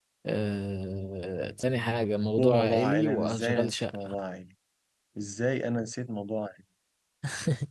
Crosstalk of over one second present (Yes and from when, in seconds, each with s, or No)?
Yes, from 2.4 s